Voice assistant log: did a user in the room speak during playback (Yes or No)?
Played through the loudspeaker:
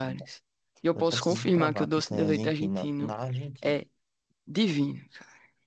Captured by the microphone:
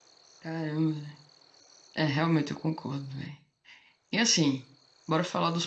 Yes